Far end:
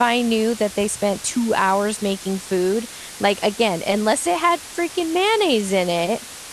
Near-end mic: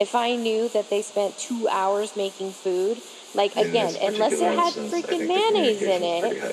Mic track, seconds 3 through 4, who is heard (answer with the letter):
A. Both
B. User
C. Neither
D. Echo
A